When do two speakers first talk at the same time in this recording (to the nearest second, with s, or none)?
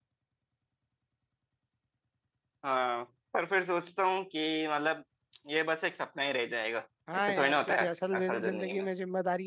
7 s